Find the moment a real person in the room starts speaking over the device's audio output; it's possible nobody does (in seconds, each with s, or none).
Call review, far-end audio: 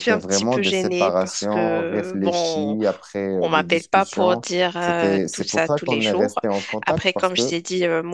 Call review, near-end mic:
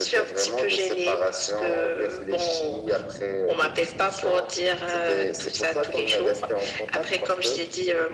none